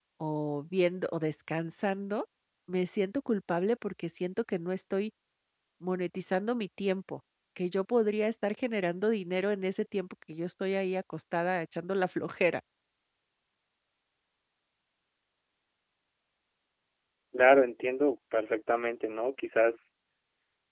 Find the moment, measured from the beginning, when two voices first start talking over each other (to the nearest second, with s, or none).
none